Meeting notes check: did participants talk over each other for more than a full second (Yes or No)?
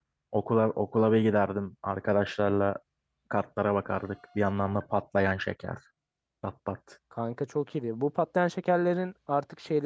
No